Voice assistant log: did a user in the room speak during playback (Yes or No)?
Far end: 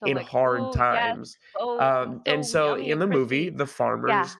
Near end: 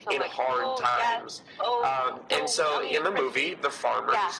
No